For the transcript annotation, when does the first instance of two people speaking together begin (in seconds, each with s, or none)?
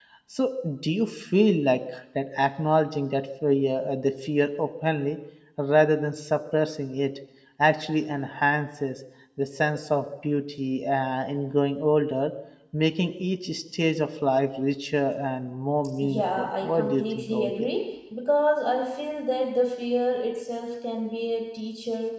16.0 s